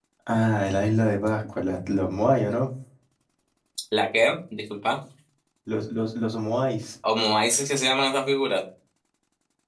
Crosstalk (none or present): none